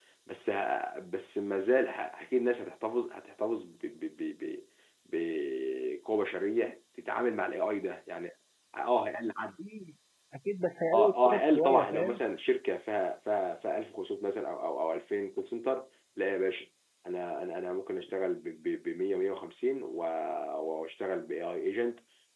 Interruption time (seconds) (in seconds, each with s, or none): 10.9 s